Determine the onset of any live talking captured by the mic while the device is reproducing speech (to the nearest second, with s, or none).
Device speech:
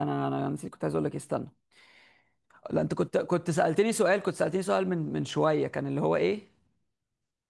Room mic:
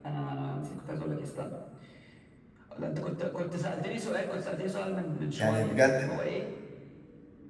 5 s